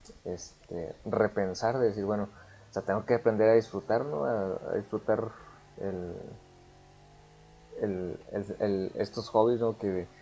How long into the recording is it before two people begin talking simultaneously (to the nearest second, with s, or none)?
none